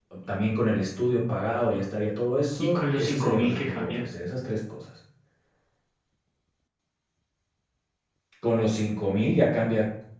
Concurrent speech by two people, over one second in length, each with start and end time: 2.6-4.0

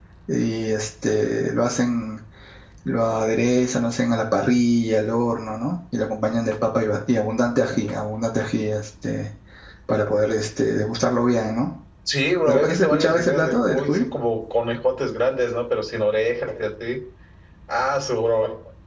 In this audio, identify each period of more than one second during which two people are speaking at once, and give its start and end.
12.4-14.1

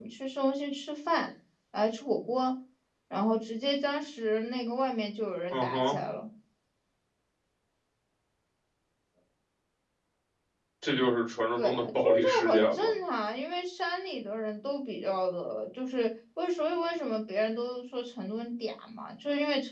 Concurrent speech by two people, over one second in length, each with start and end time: 11.6-12.9

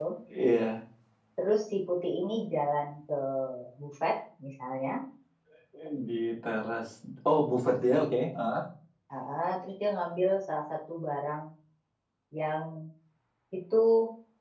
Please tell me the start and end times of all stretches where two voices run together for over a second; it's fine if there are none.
none

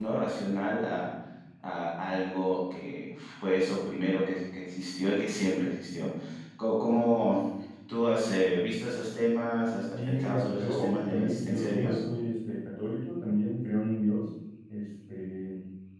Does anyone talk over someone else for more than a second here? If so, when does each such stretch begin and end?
9.9-12.0

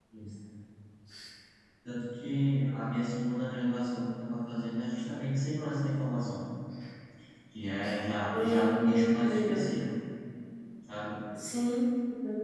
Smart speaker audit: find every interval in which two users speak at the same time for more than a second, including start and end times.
8.3-9.7

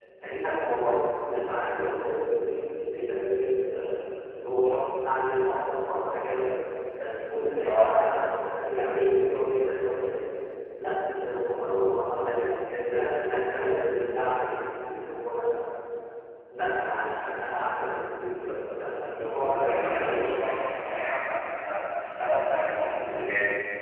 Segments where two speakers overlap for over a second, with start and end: 19.1-20.3

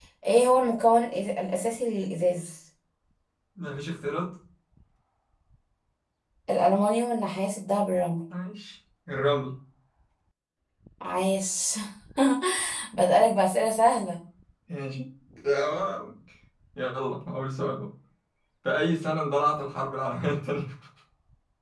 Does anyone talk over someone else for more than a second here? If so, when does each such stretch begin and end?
none

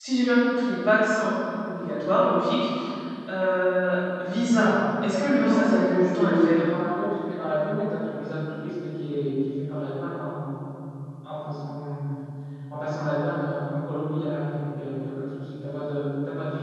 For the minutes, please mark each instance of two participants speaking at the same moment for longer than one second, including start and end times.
5.3-6.6

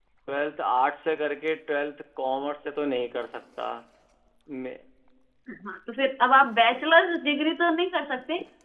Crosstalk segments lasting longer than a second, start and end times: none

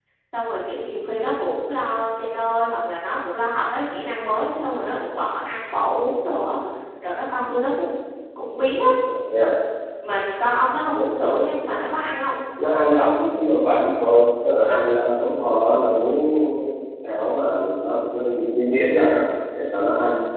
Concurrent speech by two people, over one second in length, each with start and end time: none

